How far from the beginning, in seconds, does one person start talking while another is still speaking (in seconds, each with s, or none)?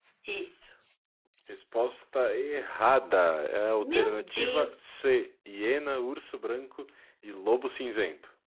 3.8 s